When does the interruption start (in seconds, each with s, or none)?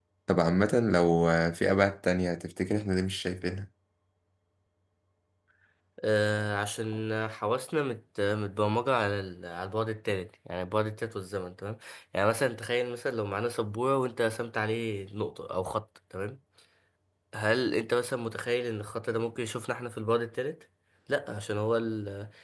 none